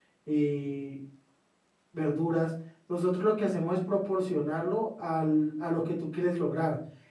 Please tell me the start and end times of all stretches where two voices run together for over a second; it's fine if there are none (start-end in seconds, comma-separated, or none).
none